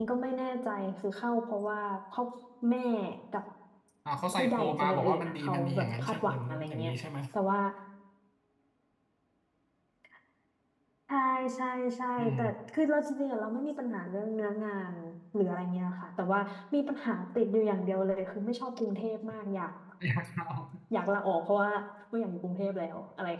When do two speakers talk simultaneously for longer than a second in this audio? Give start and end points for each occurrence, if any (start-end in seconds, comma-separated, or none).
4.3-6.9